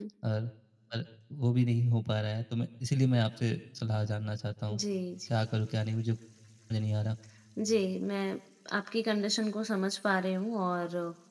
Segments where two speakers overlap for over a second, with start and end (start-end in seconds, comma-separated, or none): none